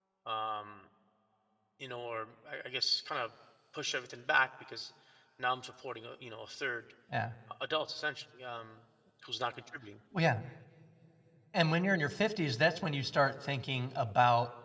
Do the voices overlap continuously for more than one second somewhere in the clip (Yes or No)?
No